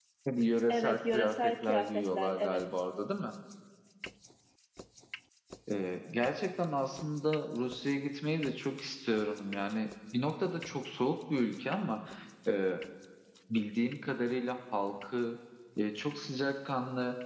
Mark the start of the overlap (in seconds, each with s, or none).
0.7 s